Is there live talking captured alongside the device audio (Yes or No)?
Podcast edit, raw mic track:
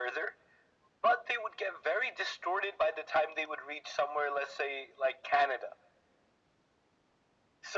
No